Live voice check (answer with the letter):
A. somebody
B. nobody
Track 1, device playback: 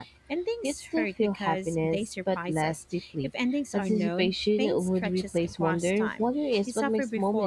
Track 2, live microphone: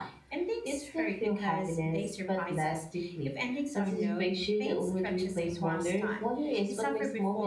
B